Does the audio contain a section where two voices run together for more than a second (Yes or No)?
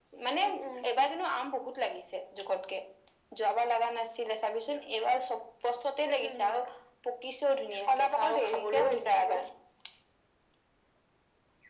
Yes